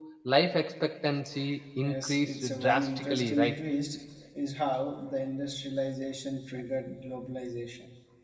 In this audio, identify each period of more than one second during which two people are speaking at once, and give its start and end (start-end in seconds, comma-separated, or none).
1.8-3.6